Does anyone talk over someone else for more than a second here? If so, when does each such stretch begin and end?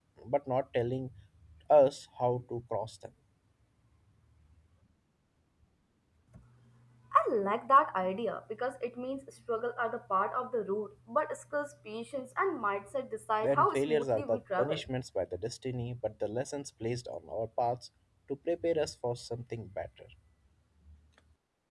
13.4-14.9

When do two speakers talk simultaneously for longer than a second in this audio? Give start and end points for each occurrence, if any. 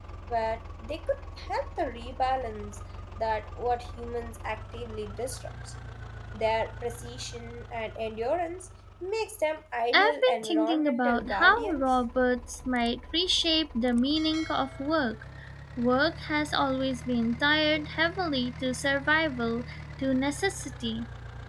9.9-11.8

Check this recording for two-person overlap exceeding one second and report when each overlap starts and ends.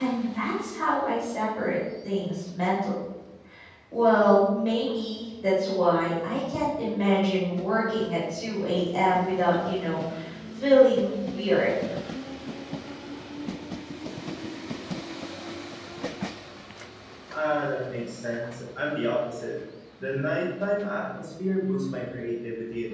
none

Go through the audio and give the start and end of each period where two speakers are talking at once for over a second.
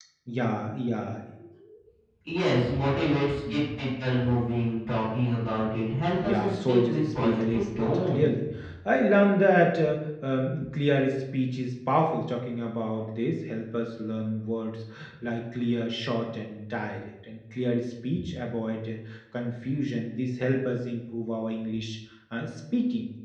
6.0-8.3

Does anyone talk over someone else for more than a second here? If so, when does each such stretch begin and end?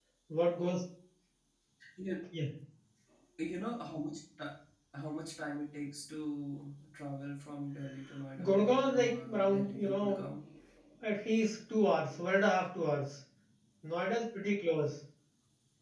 8.4-10.3

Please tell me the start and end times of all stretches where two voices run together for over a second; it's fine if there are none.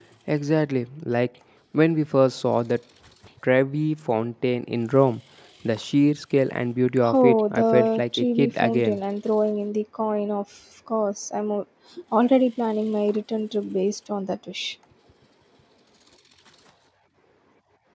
7.1-9.0

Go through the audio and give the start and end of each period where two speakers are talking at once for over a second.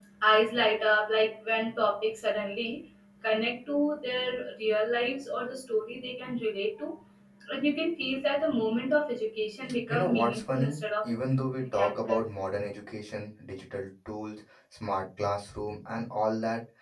9.9-11.1

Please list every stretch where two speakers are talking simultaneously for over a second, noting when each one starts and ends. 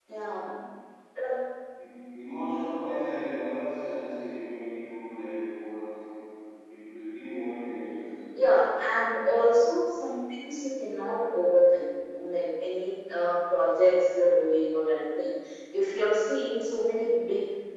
none

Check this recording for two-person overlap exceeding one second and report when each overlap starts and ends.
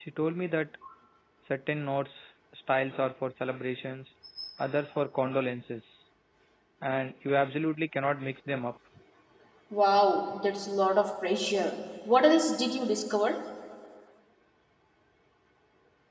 none

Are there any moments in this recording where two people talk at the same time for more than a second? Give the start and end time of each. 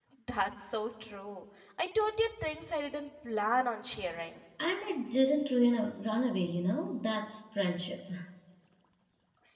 none

